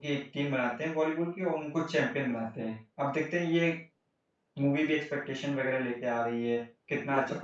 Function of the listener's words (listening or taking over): listening